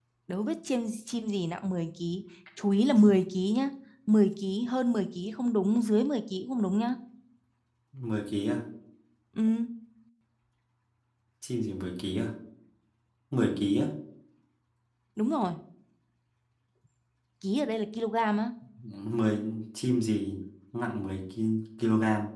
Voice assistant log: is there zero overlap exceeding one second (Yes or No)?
Yes